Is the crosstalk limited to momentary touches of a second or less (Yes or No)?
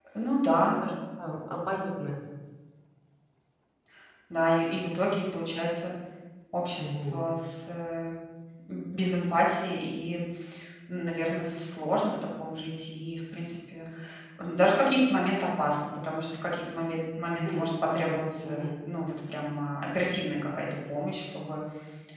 No